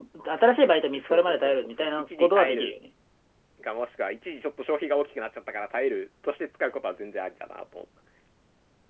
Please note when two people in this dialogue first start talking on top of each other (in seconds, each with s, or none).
1.0 s